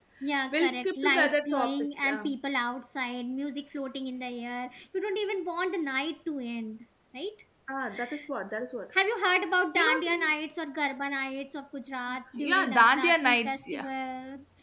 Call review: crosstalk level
present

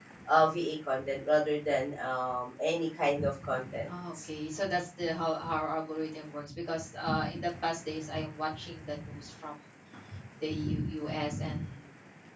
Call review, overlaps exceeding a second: none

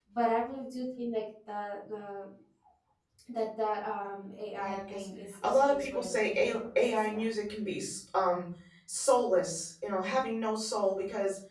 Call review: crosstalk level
present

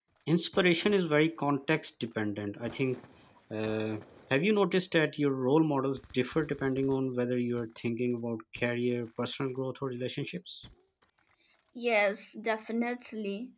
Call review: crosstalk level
none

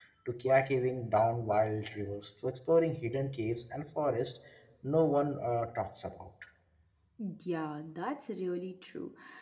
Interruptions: none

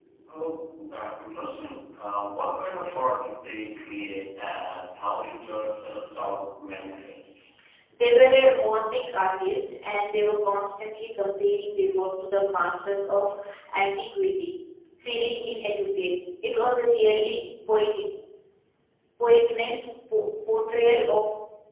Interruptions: none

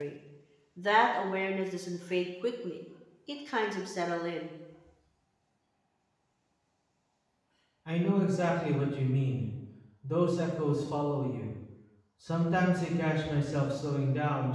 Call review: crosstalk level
none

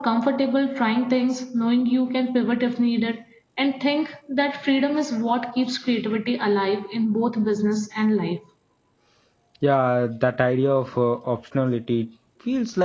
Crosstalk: none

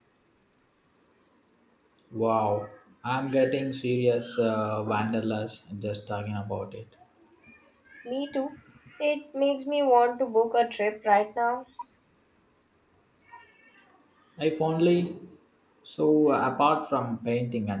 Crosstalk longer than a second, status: none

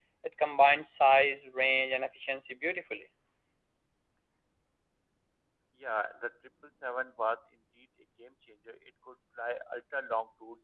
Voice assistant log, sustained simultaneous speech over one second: none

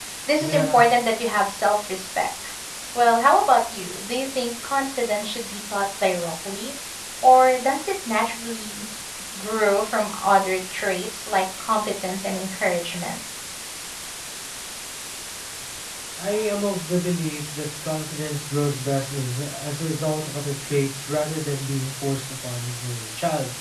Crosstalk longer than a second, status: none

